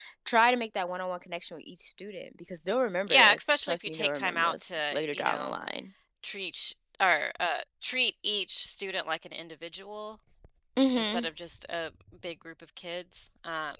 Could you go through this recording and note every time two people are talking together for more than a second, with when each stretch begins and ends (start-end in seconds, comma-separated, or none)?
3.1-5.5